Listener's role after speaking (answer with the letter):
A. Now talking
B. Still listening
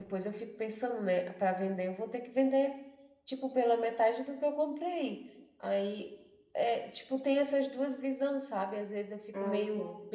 B